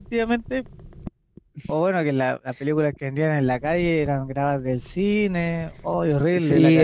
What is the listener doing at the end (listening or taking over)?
taking over